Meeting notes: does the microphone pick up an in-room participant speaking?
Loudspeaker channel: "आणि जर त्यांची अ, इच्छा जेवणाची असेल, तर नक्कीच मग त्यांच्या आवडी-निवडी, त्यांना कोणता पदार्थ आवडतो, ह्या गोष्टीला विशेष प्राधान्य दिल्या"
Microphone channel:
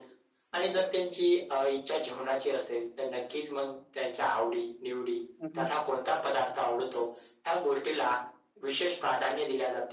Yes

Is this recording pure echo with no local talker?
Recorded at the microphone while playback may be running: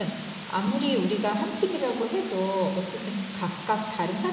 No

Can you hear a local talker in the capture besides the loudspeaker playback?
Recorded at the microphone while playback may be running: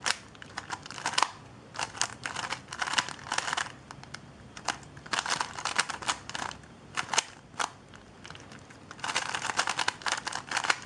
No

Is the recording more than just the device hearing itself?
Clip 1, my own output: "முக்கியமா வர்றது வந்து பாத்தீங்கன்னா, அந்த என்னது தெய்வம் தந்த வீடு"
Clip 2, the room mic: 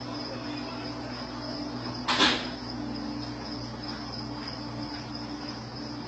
No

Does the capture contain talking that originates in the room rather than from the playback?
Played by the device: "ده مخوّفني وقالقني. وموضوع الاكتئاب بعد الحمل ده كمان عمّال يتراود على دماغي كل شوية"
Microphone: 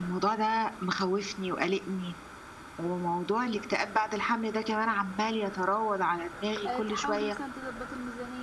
Yes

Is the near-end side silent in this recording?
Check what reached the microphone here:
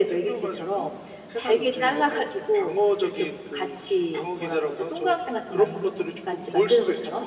Yes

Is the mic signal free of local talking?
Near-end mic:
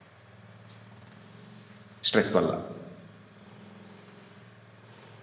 No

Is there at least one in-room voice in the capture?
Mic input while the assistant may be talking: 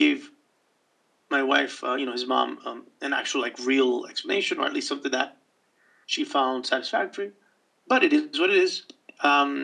No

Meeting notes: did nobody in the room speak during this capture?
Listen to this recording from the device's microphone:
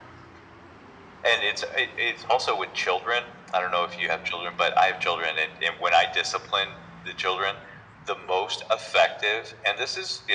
Yes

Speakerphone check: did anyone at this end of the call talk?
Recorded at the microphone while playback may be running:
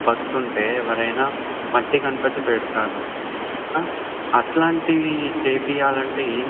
No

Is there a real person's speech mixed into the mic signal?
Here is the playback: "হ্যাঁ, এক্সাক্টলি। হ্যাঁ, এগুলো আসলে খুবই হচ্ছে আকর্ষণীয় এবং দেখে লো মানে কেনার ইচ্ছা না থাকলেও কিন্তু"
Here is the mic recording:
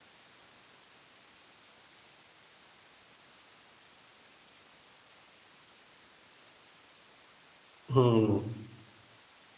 Yes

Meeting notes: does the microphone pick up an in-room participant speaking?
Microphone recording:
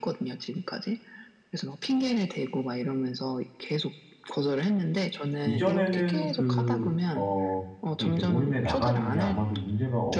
Yes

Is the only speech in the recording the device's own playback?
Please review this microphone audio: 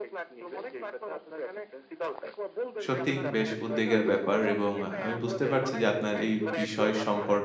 No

